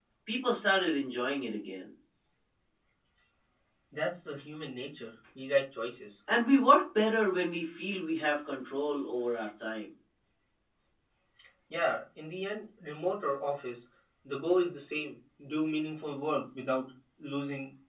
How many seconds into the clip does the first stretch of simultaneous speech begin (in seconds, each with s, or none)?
none